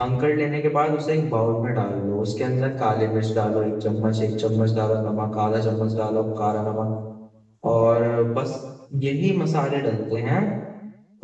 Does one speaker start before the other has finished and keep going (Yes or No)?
No